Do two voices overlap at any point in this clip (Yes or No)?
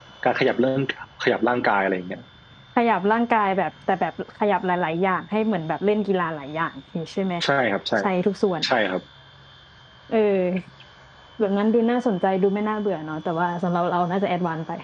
No